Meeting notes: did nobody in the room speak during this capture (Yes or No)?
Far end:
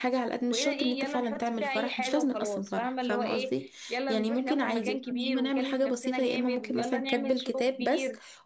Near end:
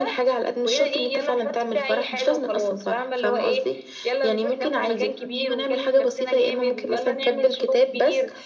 Yes